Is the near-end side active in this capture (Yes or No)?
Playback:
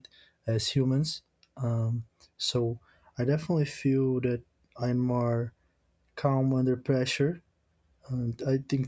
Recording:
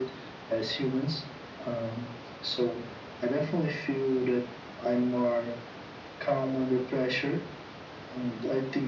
No